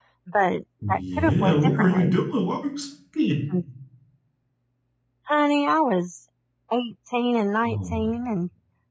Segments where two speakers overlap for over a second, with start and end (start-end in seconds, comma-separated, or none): 0.9-2.2